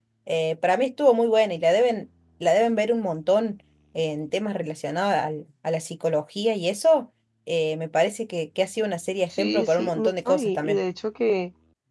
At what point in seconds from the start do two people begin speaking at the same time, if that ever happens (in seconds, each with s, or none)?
9.3 s